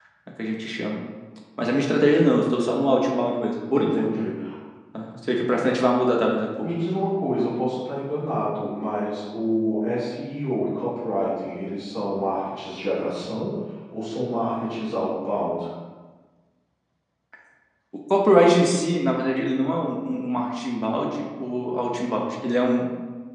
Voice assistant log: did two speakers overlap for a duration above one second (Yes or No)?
No